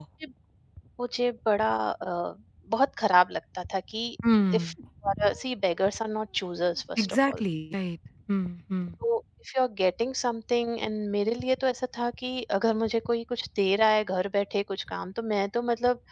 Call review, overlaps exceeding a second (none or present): none